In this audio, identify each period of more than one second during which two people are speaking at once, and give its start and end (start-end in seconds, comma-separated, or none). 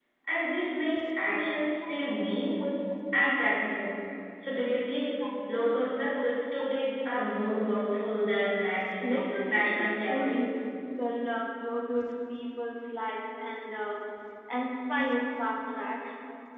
9.0-10.6